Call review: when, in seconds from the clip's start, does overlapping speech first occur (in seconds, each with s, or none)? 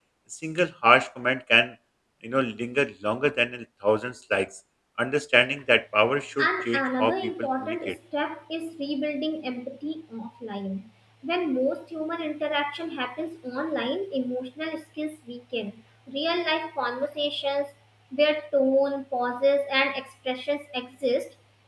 6.4 s